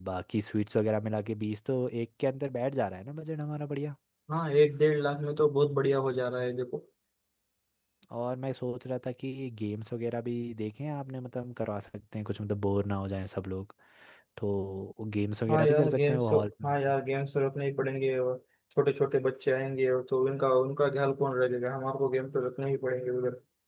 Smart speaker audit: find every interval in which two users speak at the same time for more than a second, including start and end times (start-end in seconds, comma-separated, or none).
15.5-16.9